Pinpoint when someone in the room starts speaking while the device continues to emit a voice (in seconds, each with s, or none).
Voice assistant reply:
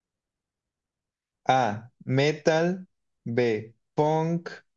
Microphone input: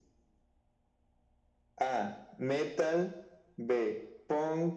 none